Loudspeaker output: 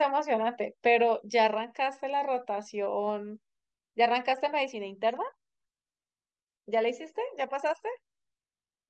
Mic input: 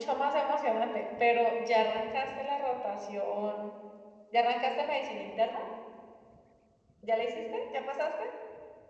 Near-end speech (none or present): none